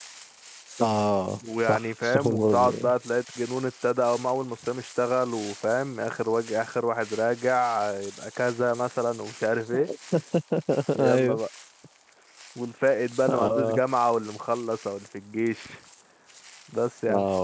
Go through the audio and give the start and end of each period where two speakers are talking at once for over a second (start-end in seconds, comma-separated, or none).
1.6-2.9